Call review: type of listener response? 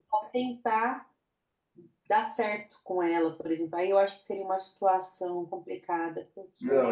taking over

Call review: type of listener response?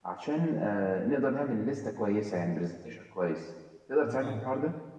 taking over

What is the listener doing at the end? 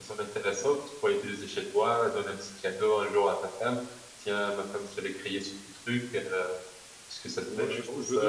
taking over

